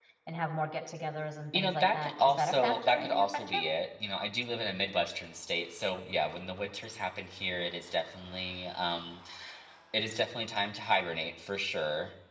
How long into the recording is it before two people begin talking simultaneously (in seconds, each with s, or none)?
1.5 s